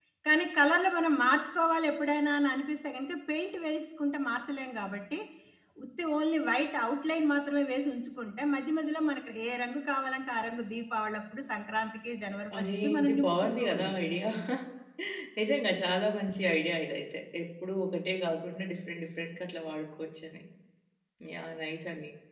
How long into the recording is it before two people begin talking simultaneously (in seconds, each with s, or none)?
12.5 s